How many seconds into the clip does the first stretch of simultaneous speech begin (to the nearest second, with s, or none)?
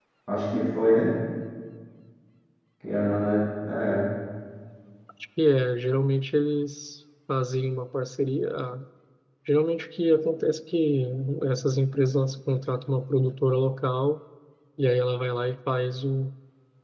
none